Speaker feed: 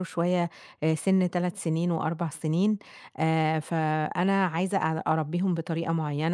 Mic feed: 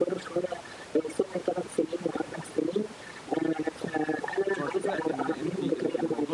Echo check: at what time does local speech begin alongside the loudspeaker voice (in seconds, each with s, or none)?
4.5 s